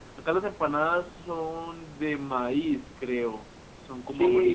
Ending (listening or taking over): taking over